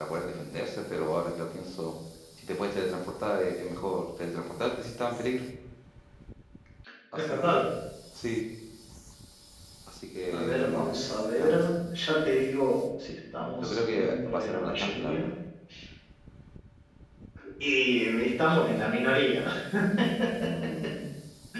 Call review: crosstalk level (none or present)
present